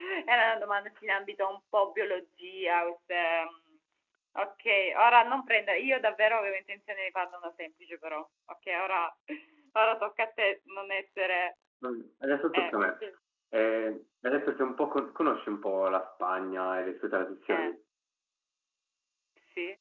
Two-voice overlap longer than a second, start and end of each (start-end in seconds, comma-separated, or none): none